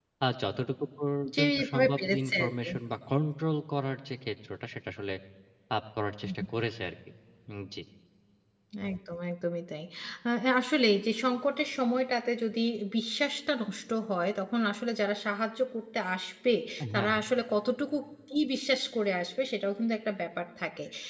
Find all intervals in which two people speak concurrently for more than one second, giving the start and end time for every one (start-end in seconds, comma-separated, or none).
1.4-2.7